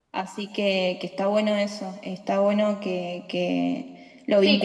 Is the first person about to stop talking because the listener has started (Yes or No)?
Yes